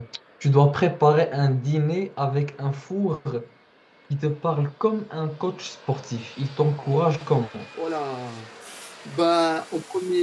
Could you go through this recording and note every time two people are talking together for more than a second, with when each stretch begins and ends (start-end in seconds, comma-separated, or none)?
none